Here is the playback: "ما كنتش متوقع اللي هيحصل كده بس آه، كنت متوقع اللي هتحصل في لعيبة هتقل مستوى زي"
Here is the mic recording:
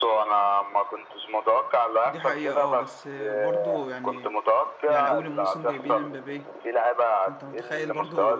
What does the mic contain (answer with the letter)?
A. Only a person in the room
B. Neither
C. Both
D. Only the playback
C